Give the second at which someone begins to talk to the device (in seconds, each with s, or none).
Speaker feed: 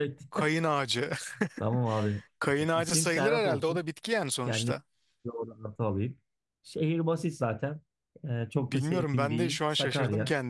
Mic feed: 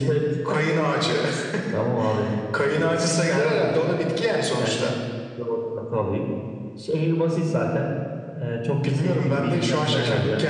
9.5 s